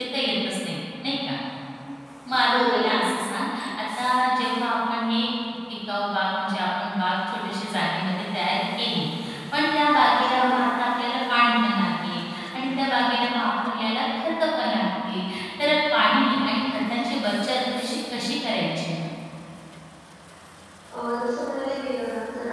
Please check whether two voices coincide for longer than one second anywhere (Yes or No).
No